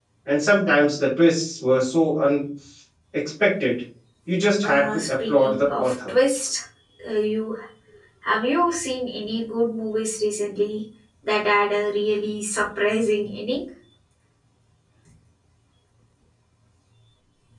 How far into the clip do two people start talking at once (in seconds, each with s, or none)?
4.6 s